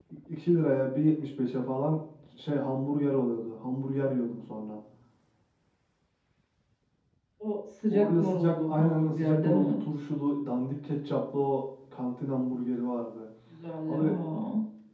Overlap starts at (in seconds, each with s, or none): 7.9 s